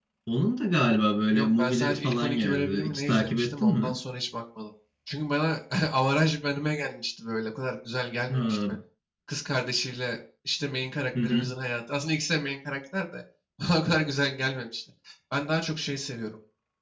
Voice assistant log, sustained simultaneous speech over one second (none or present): present